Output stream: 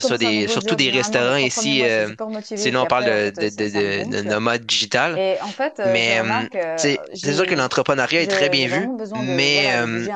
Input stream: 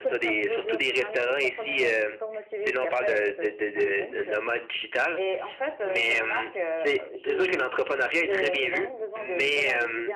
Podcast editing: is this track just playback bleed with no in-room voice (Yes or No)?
Yes